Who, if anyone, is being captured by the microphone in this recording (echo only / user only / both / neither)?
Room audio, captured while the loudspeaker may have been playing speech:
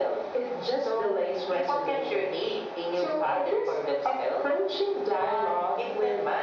echo only